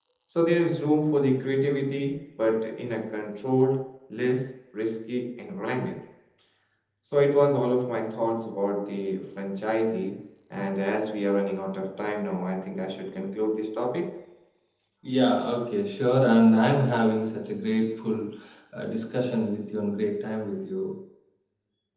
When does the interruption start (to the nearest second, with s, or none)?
none